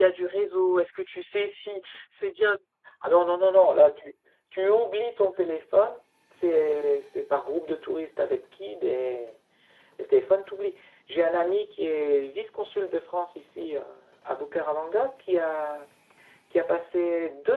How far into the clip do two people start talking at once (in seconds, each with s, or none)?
none